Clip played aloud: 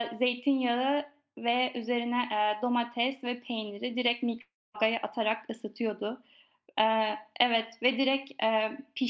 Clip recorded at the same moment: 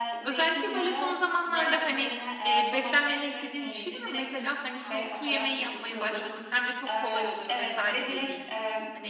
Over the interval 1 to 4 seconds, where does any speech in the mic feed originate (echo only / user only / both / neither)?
both